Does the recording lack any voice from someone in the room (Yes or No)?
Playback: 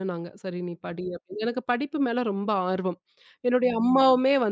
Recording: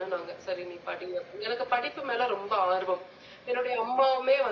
Yes